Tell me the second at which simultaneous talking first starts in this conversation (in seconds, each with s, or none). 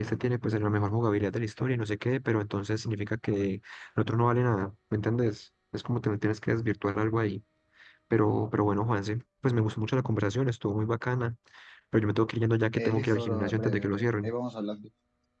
12.8 s